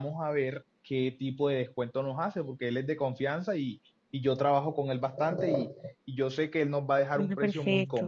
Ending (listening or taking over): listening